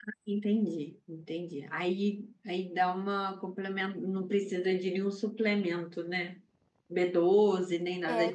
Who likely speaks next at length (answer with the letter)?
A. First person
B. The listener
B